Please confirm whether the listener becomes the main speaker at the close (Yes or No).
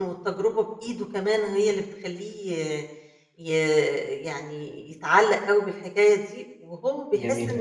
No